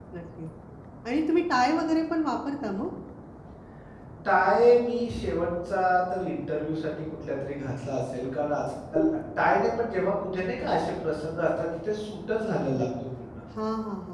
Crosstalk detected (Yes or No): No